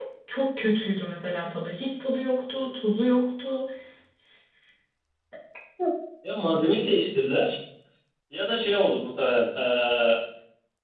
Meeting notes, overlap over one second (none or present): none